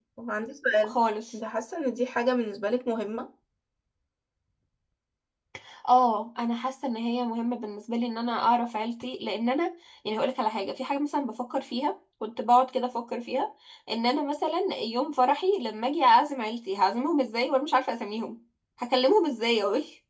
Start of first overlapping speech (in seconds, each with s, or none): none